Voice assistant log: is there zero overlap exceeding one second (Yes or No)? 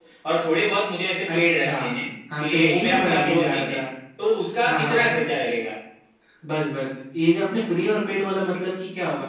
No